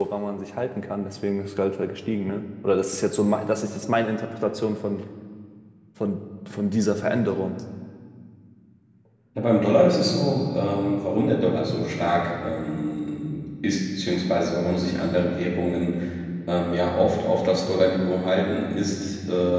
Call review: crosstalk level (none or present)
none